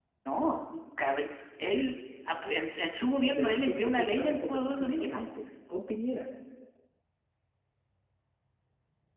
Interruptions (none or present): present